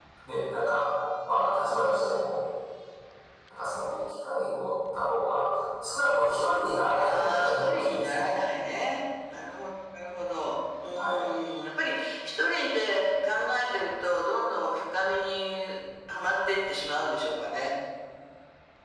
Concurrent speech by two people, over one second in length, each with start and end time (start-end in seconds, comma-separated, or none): 7.1-8.3